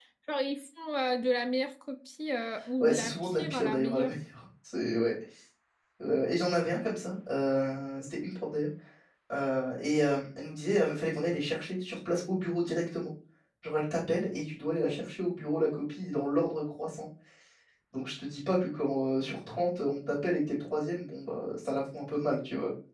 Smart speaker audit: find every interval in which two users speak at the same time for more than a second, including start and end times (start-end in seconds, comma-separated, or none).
2.8-4.1